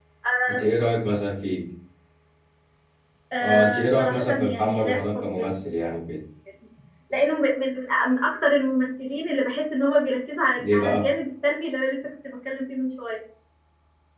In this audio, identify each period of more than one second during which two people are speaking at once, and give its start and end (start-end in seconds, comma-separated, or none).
3.4-5.6